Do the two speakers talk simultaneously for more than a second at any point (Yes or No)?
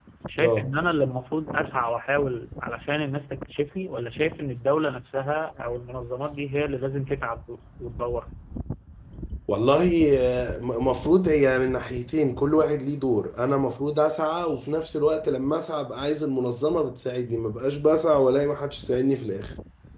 No